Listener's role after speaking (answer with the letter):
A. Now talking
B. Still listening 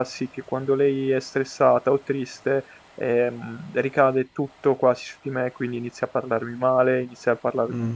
A